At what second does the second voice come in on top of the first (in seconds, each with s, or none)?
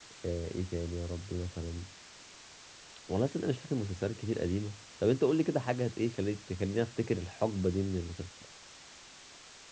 none